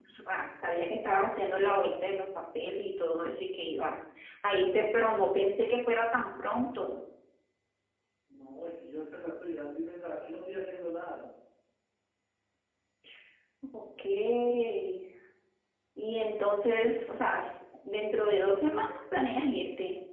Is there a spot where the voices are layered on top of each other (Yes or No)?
No